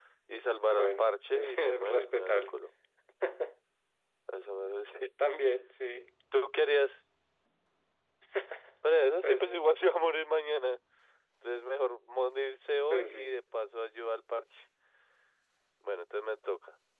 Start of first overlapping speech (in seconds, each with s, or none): 0.7 s